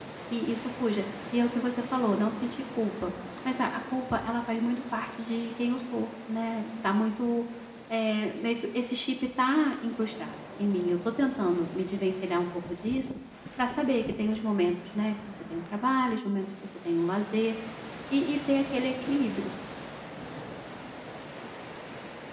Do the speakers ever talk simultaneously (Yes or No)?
No